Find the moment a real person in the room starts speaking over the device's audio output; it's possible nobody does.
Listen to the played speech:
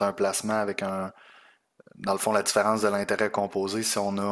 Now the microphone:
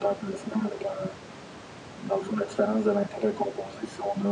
none

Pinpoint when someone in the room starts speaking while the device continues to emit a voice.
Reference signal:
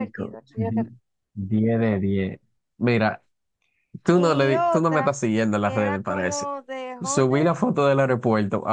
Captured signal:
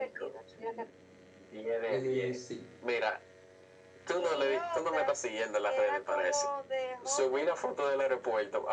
1.9 s

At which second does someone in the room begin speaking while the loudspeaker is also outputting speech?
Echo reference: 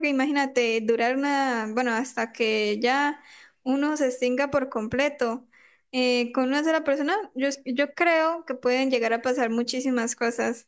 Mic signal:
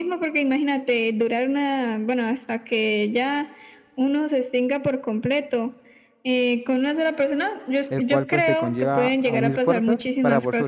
7.9 s

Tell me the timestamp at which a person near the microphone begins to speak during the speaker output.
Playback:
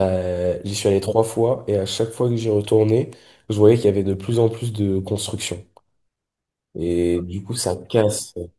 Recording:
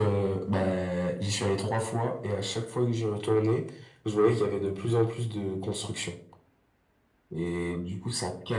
none

